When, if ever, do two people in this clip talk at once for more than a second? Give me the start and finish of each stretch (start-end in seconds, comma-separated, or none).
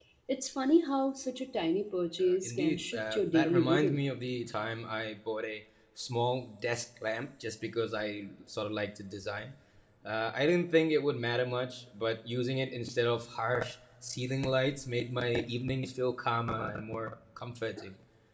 2.2-4.0